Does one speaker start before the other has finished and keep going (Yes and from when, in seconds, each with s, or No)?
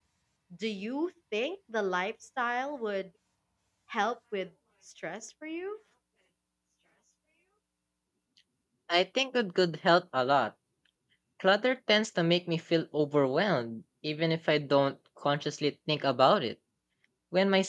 No